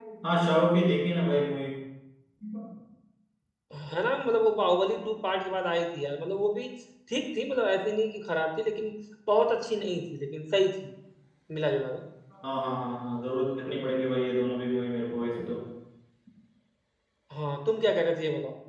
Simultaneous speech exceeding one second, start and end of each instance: none

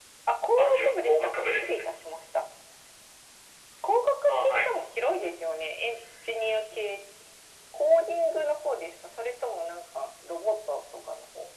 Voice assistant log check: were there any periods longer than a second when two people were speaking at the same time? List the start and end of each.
0.6-1.8

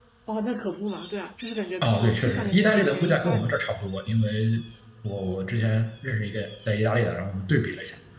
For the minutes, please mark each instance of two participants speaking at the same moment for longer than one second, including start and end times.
1.8-3.6

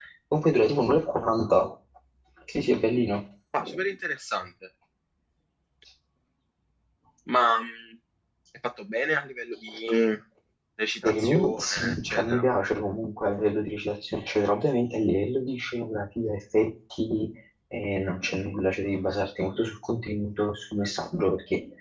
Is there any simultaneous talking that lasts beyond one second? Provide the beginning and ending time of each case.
11.0-12.4

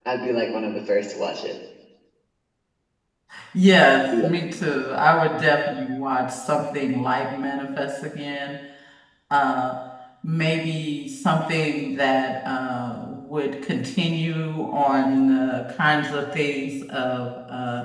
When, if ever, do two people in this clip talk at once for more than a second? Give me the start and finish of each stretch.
none

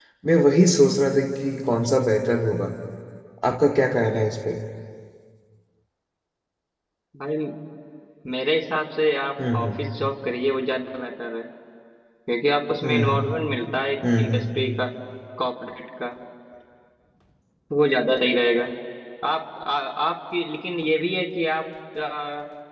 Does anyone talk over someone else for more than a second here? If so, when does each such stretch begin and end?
none

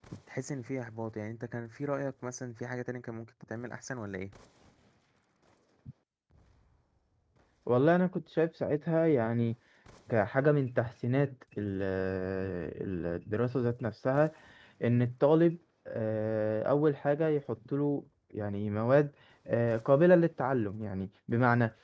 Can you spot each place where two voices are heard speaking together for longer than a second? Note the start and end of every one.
none

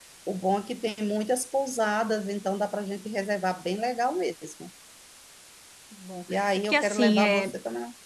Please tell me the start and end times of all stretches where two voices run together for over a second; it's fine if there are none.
6.3-7.5

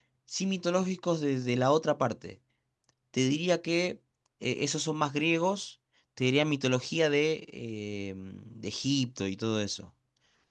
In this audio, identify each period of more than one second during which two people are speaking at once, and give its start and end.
none

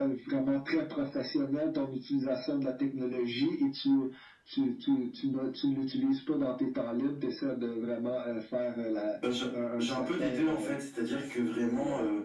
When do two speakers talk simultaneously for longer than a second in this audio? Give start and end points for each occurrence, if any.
9.5-10.7

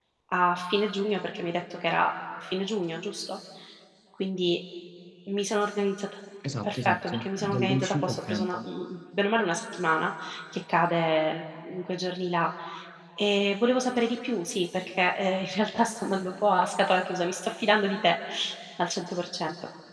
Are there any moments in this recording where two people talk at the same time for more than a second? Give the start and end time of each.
6.6-8.6

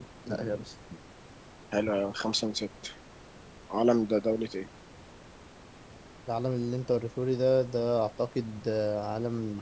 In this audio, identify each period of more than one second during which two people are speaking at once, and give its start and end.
none

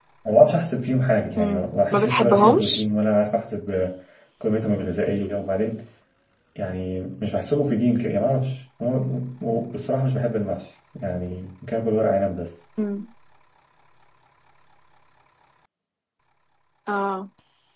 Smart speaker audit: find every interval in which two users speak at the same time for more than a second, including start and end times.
1.4-2.8

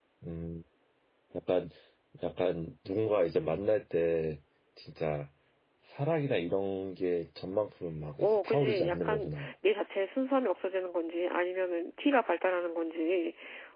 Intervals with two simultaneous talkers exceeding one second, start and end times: 8.2-9.5

